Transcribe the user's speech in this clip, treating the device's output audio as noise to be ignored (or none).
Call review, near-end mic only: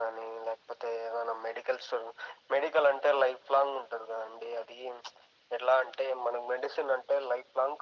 none